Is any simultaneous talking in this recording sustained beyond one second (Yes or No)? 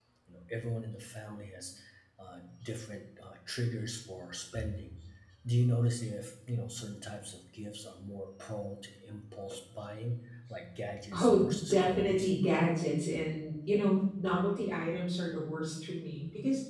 Yes